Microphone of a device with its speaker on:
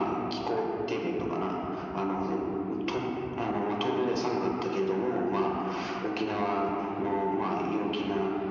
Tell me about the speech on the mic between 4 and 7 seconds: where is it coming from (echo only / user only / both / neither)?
echo only